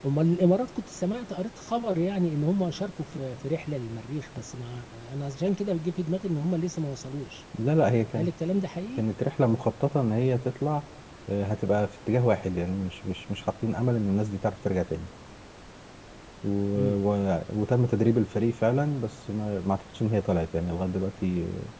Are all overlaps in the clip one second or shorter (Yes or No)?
Yes